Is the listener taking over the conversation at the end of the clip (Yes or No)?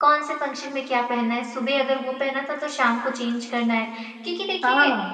No